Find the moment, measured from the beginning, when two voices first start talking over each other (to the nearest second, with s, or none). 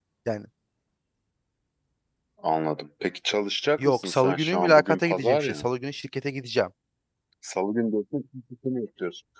4 s